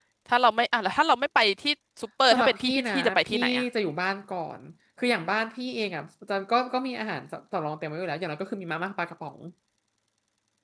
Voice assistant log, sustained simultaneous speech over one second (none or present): present